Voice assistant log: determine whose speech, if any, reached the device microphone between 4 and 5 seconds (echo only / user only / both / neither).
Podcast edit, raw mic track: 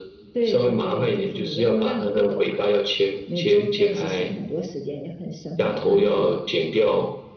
echo only